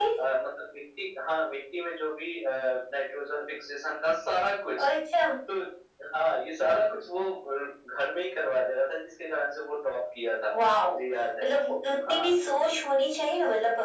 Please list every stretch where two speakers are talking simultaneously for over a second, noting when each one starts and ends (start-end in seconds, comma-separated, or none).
none